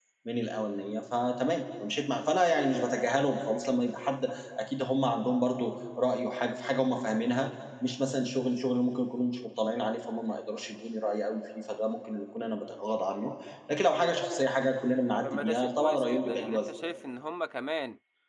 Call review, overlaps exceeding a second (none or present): present